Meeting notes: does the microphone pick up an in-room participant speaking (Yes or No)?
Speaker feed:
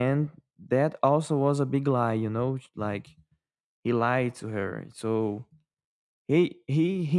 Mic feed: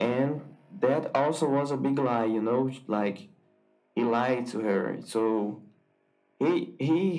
No